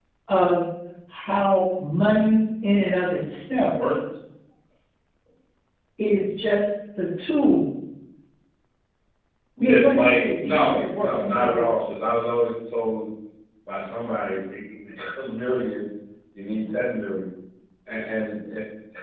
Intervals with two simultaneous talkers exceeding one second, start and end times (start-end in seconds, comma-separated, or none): 9.6-11.9